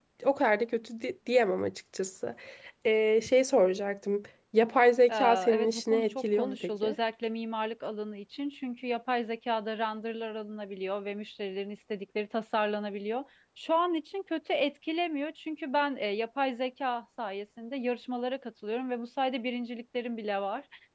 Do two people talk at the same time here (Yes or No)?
Yes